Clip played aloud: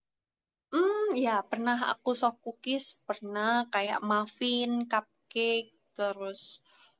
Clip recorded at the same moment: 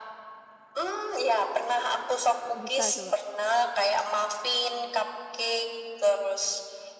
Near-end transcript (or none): Kok bisa coba?